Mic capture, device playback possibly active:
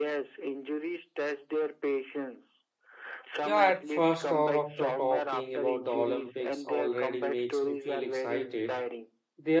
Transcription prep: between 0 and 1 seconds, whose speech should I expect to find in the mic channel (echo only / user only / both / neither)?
echo only